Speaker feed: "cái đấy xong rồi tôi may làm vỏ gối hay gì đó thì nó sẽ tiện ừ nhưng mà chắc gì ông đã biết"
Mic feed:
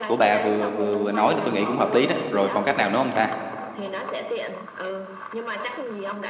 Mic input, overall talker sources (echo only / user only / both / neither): both